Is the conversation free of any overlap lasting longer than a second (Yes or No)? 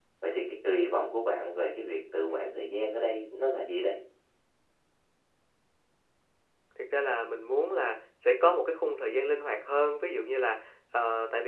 Yes